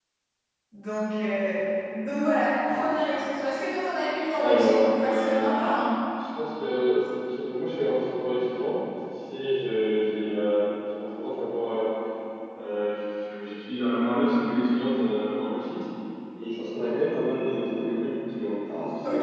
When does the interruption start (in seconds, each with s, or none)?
4.4 s